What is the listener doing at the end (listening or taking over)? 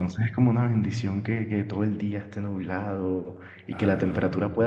listening